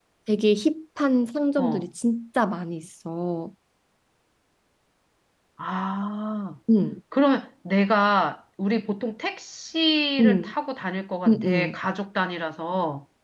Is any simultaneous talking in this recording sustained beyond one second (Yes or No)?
No